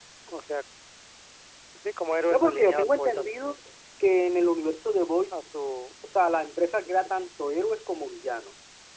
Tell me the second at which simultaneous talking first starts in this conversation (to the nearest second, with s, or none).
2 s